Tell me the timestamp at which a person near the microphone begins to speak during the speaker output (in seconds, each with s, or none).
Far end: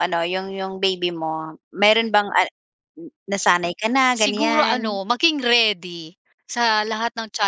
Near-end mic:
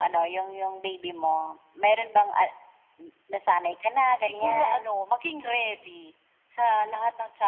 none